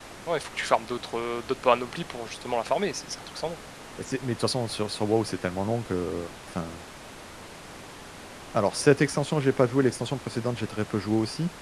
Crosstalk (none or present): none